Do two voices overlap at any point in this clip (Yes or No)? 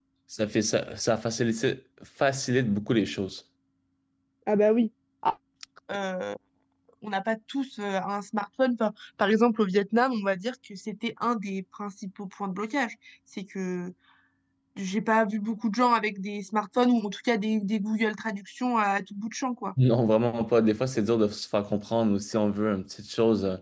No